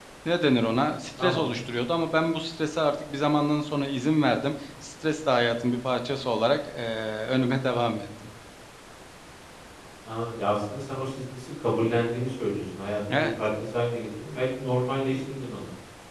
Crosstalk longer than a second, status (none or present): none